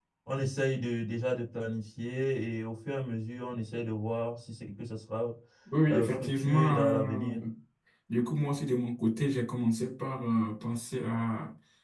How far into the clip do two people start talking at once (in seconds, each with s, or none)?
5.9 s